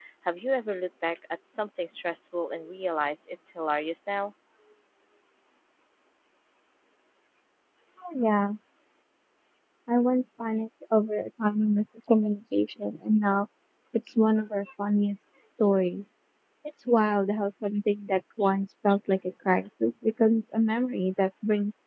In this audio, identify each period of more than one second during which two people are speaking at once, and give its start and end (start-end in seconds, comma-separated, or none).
none